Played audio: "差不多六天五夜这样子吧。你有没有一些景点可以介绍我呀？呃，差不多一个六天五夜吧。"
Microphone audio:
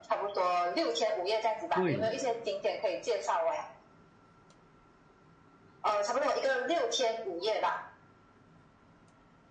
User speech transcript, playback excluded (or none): 对，